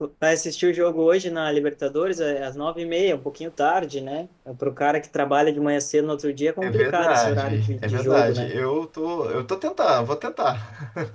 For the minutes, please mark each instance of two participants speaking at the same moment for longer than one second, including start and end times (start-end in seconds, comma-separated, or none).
6.6-8.5